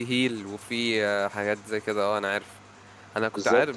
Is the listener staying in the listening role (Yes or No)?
Yes